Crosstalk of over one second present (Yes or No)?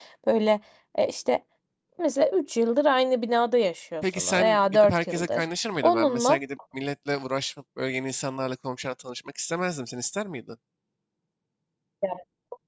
Yes